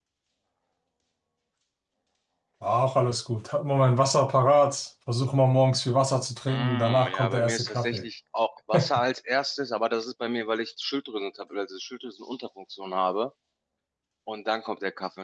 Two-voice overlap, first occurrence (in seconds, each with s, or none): 6.5 s